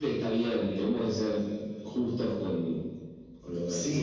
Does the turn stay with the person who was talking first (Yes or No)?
No